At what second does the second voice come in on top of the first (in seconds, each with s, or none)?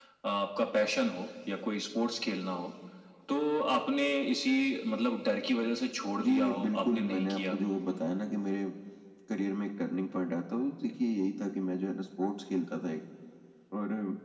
6.2 s